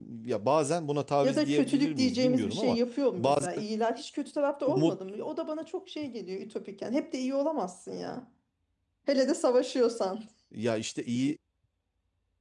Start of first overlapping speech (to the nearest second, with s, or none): 1 s